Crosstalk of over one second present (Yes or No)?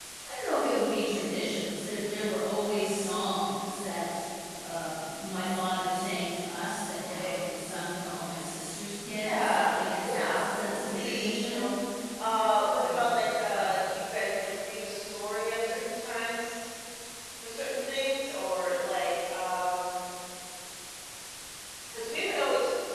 Yes